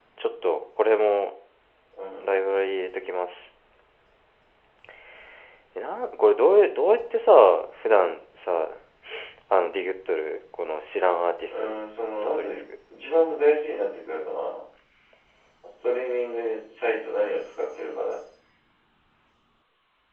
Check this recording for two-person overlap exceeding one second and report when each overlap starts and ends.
none

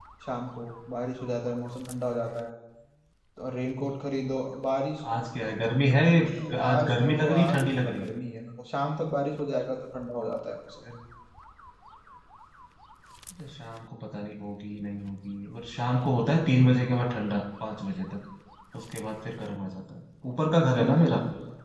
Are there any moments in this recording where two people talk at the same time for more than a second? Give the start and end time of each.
6.7-8.1

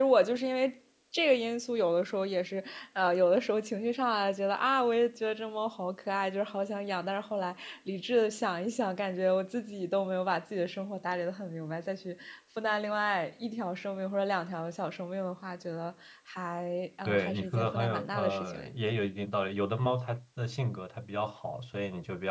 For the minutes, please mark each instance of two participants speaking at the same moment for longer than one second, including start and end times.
17.1-18.7

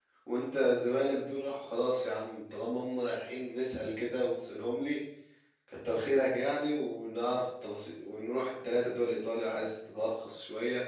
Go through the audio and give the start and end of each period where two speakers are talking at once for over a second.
none

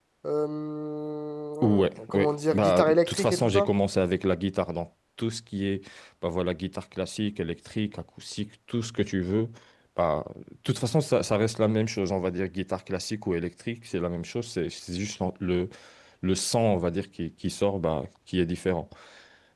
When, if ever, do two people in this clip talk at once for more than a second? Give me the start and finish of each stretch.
1.6-3.7

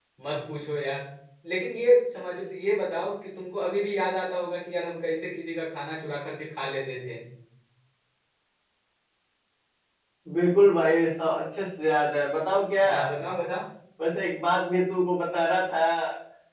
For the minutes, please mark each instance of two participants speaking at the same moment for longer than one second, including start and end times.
none

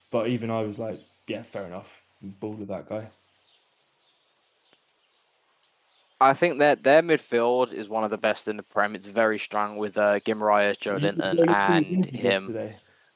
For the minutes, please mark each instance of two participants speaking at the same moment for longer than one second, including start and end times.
10.9-12.5

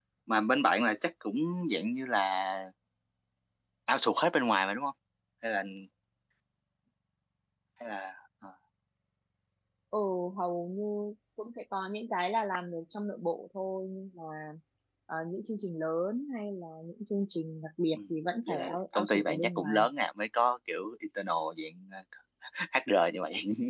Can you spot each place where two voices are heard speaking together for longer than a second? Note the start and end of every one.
18.5-19.9

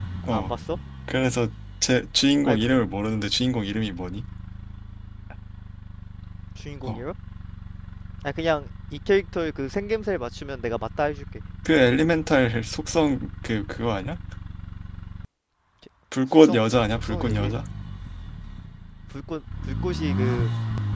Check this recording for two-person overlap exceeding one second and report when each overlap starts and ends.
16.3-17.5

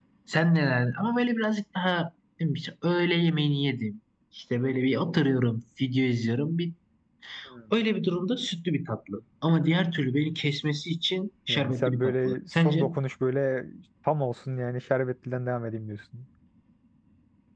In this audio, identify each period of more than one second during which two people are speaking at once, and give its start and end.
11.5-12.9

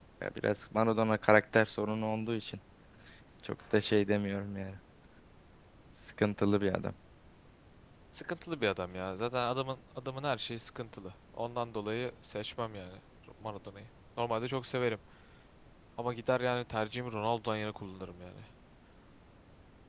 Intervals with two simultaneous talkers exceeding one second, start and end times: none

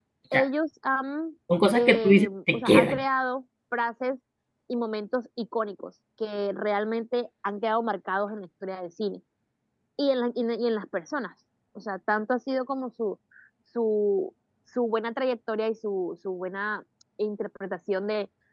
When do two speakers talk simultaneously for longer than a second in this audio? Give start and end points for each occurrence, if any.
1.7-3.0

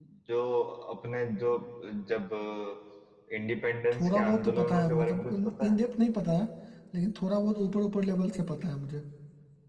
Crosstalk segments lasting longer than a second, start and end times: 3.9-5.8

